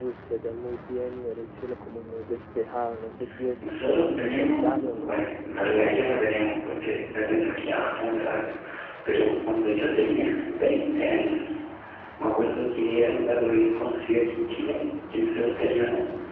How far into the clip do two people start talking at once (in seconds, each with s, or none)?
3.6 s